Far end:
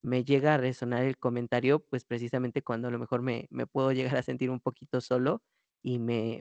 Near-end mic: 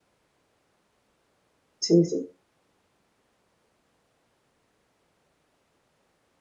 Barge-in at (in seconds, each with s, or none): 1.8 s